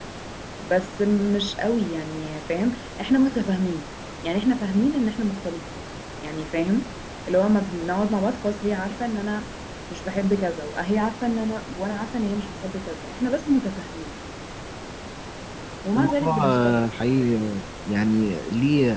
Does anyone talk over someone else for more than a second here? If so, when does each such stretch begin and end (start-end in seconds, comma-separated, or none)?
16.0-17.4